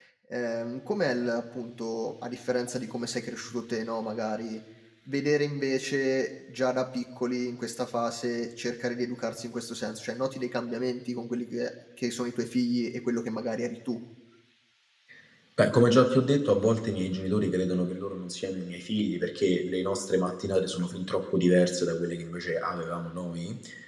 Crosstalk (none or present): none